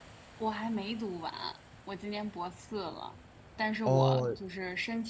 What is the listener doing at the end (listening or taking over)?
listening